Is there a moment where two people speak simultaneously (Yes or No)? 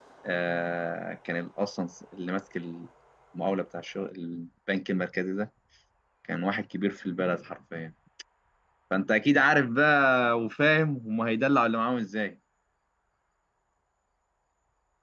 No